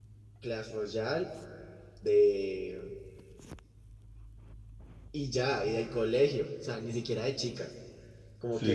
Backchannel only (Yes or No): Yes